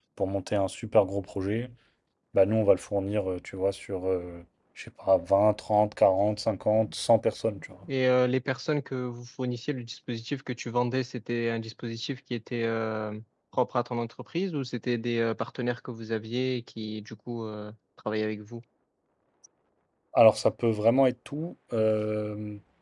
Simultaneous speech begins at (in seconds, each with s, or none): none